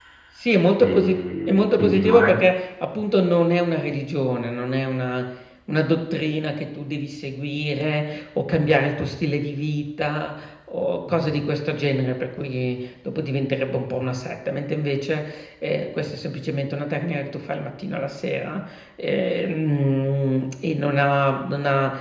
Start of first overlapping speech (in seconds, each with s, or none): 0.8 s